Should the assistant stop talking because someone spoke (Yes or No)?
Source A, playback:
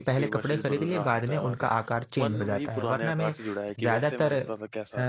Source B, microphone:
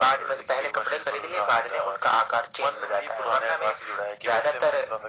No